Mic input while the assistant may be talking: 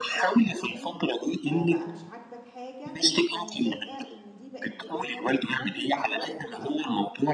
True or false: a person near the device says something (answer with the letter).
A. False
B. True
B